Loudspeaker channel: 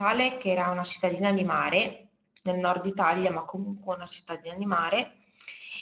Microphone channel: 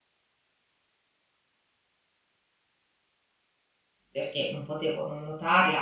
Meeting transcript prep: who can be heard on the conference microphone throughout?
user only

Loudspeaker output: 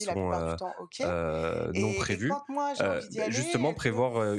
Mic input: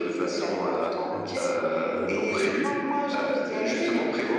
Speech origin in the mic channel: both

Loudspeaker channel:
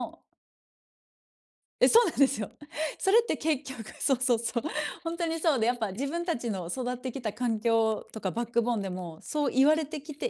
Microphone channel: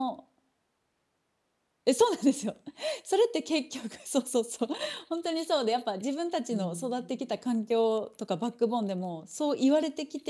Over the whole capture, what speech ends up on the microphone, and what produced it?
both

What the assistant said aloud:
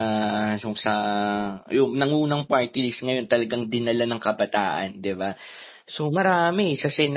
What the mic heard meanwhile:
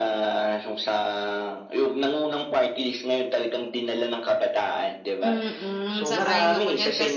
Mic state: both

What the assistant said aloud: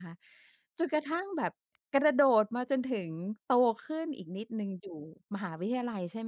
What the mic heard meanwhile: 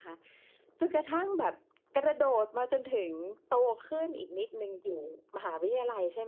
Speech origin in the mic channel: echo only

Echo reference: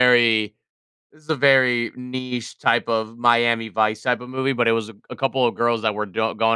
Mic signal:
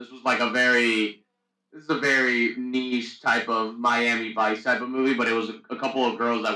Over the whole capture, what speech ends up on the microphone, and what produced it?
echo only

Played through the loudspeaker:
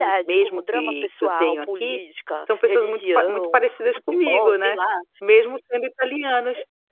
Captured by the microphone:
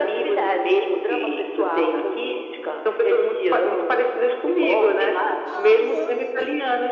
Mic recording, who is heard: both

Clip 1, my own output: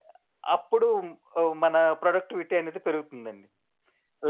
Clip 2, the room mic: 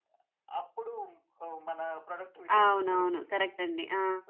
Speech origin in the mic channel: both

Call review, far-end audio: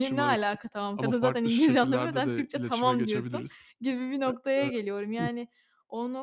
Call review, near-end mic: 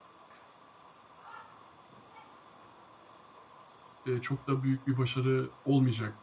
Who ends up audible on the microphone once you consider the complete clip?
user only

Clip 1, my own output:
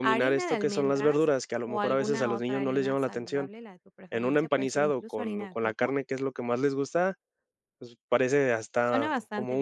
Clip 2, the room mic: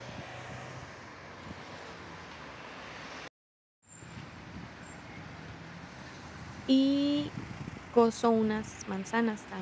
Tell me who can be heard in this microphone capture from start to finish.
user only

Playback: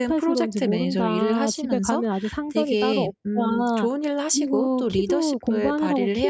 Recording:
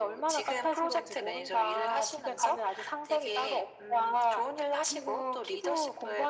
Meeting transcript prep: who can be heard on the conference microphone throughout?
echo only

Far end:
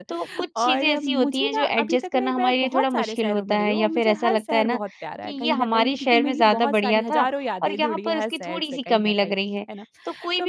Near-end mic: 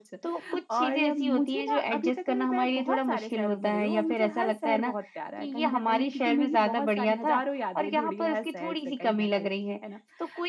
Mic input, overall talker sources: echo only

